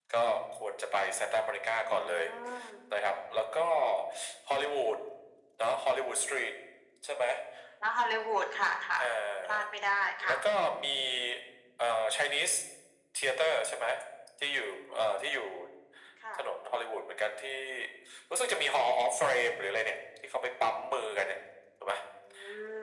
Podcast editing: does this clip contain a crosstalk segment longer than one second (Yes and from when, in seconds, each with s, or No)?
No